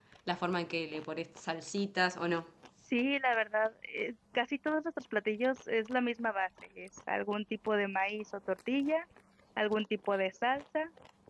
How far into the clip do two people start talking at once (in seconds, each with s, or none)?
none